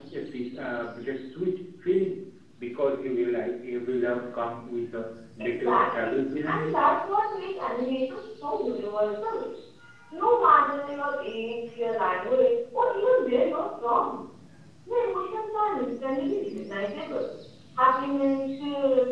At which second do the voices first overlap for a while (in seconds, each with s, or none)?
5.4 s